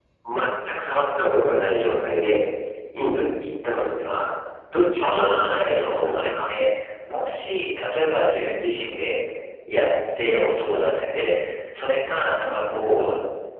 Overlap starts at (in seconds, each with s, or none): 5.0 s